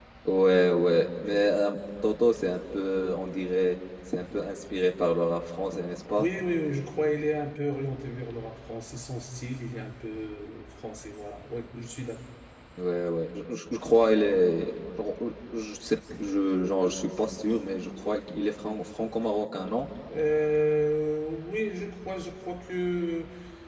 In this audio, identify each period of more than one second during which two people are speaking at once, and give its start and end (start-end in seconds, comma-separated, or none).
none